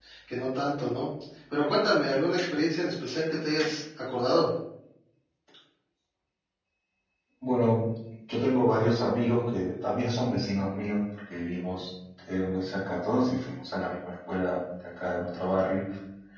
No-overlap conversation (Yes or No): Yes